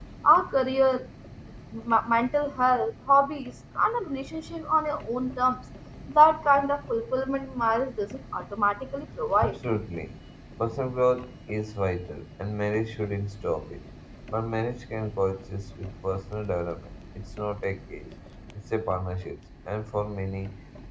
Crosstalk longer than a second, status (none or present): none